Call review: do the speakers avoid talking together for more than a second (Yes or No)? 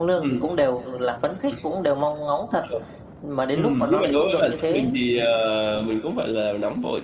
No